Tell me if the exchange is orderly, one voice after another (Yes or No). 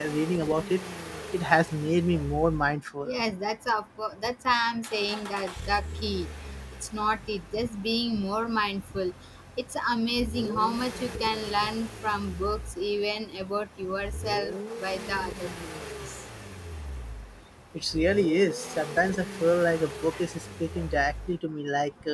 Yes